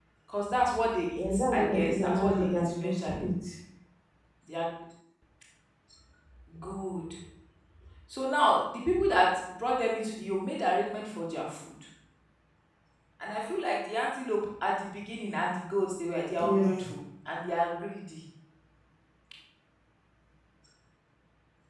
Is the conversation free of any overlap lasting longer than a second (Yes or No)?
No